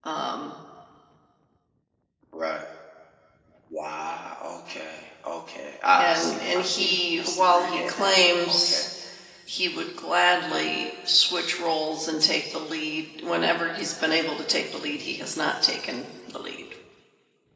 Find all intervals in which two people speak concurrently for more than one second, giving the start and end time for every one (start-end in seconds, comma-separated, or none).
6.0-8.8